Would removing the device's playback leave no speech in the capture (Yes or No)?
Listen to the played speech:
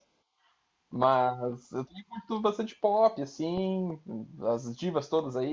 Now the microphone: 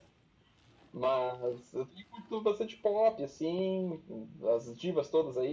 Yes